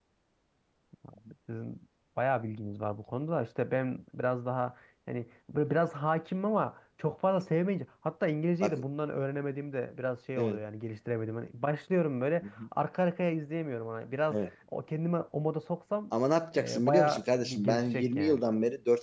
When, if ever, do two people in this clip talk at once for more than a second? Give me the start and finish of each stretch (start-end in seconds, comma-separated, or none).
16.5-18.4